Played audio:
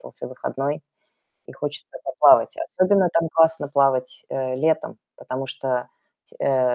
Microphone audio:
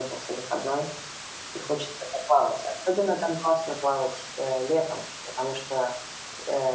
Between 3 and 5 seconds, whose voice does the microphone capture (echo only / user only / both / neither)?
echo only